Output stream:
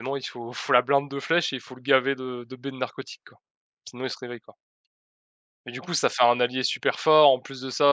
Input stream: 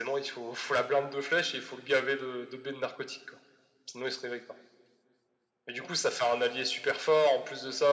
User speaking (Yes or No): No